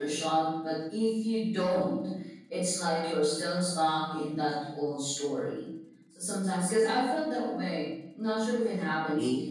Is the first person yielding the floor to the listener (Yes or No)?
No